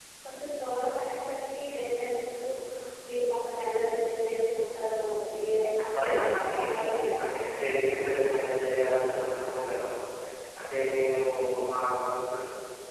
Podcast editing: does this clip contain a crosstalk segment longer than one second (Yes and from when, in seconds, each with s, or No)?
Yes, from 6.0 s